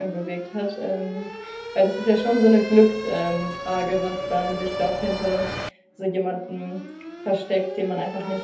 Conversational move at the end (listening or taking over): taking over